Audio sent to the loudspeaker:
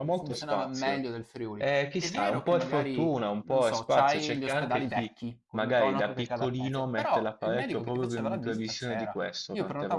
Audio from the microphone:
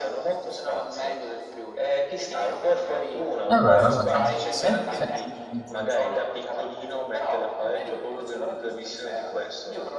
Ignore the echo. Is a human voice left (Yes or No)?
Yes